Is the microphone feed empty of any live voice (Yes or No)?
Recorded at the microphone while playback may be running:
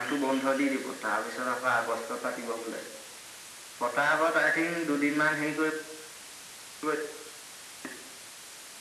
Yes